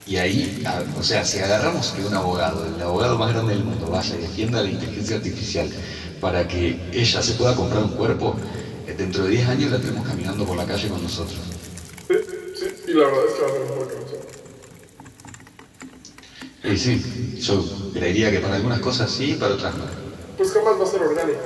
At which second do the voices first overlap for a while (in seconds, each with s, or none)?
none